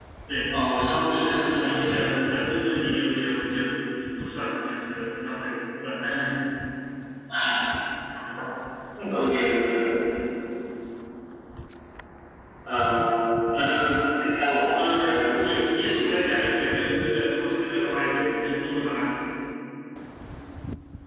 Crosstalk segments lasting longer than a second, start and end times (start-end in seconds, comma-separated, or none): 0.5-2.0, 14.7-16.3